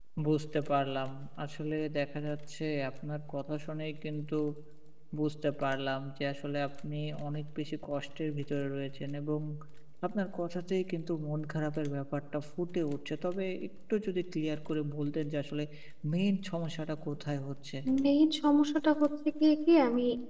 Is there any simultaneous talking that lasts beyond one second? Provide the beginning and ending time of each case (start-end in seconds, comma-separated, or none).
none